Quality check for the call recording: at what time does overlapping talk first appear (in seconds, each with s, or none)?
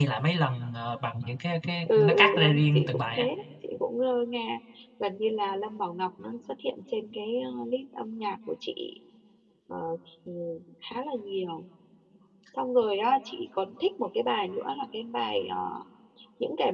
1.9 s